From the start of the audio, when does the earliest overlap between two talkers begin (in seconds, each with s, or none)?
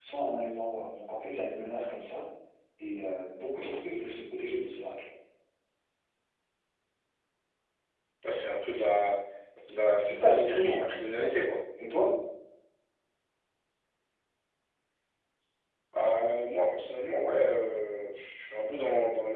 10.0 s